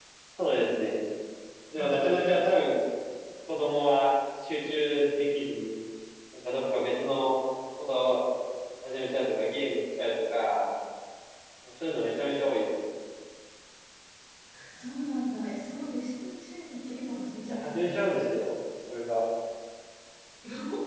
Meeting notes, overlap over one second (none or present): none